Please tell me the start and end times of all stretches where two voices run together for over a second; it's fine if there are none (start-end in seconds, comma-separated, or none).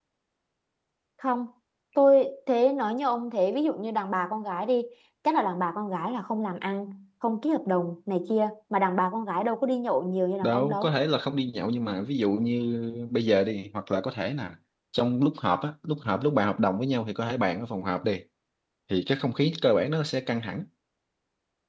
none